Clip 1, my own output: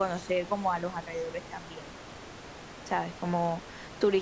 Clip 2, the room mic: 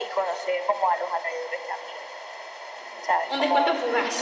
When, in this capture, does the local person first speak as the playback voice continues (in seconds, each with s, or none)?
3.3 s